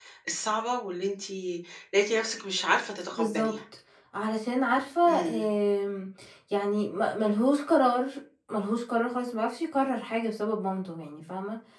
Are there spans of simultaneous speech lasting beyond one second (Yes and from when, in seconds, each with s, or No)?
No